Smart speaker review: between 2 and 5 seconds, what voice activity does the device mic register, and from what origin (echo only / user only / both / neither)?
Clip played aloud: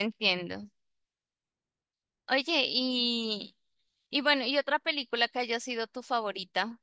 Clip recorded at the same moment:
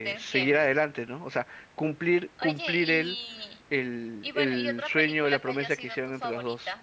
both